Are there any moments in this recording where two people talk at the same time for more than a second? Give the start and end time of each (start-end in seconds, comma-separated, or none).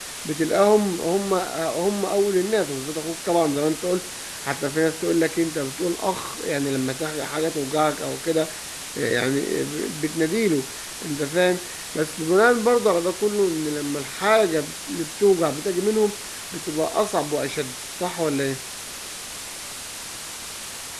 none